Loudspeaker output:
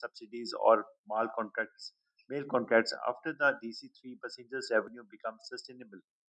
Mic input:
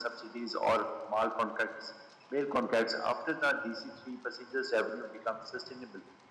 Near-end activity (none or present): none